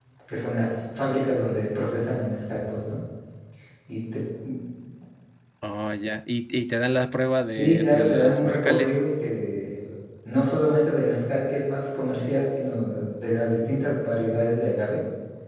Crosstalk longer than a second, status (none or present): present